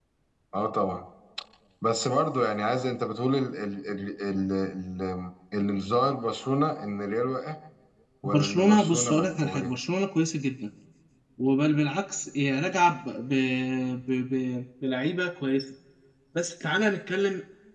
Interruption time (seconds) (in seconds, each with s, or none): 8.2 s